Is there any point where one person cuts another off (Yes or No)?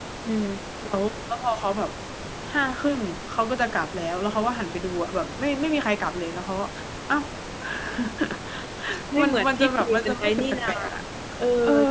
Yes